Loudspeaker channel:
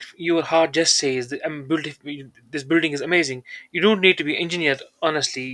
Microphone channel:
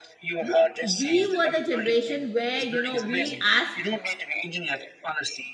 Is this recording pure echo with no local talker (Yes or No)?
No